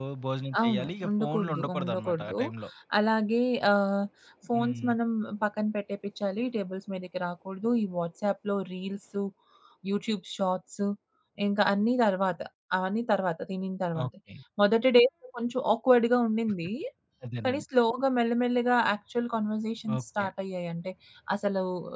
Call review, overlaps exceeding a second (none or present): present